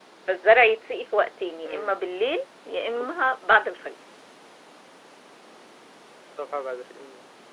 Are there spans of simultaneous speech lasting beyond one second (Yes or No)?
No